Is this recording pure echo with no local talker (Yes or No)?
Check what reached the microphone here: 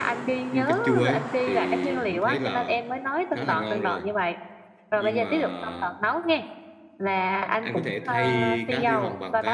No